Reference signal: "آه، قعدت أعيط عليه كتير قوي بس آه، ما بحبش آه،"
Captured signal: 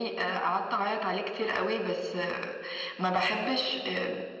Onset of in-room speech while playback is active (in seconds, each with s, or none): none